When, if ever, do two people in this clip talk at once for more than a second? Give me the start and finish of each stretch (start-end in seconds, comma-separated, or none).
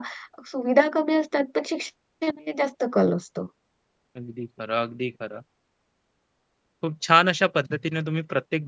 none